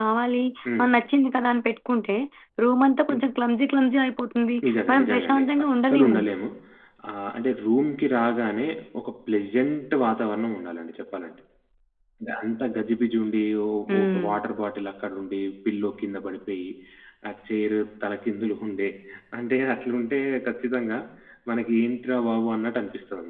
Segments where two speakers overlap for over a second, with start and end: 4.9-6.2

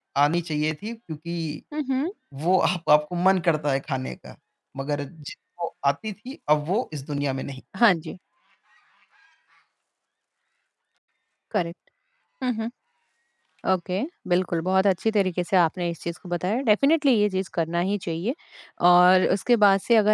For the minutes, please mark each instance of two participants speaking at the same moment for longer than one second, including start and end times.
none

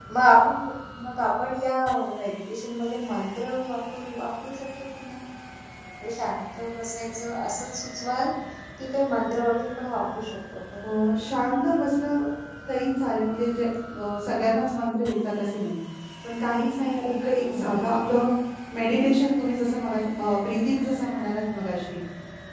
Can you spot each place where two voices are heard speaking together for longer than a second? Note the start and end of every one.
none

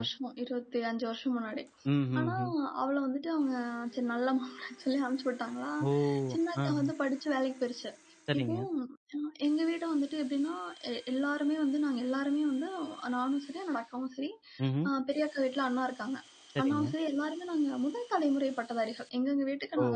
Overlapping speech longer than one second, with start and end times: none

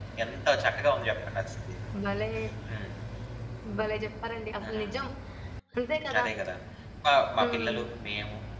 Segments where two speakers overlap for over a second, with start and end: none

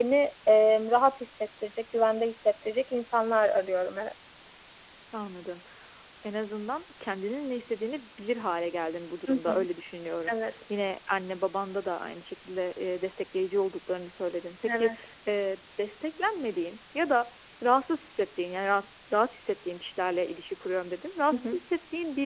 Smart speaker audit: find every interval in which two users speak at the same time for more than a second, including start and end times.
none

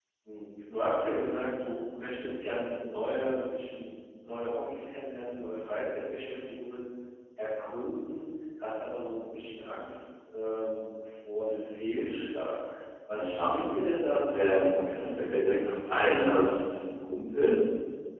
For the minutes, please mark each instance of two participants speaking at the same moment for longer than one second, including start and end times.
14.3-16.0

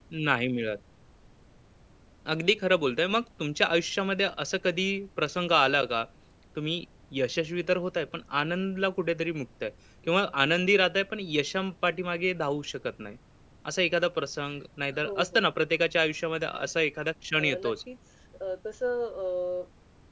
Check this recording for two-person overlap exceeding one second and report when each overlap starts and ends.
none

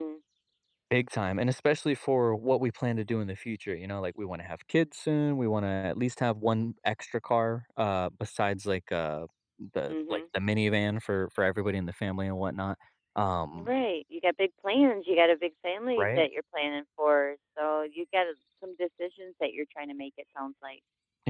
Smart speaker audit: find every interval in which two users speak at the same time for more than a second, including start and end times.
none

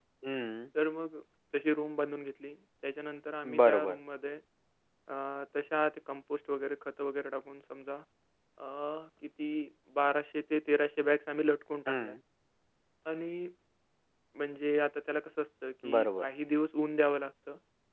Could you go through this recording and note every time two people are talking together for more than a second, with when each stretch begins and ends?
none

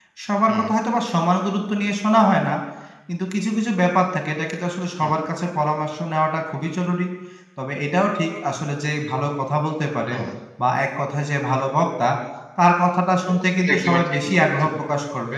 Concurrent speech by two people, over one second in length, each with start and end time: 13.3-14.7

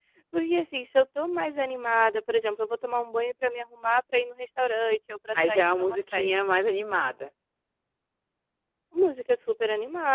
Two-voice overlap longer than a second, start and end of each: 5.3-6.6

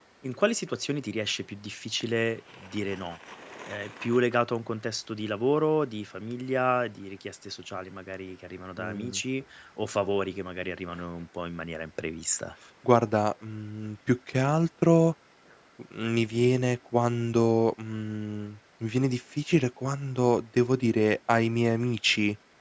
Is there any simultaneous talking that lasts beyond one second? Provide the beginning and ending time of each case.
none

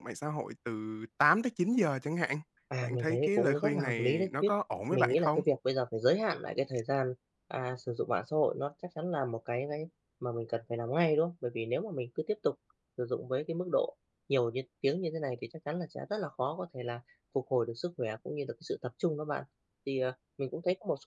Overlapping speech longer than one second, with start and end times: 2.8-4.5

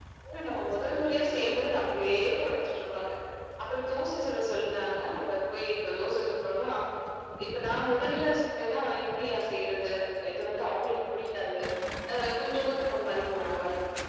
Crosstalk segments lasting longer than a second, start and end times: 0.6-2.4

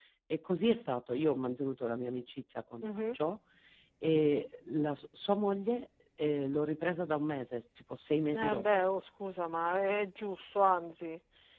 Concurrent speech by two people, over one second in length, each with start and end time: none

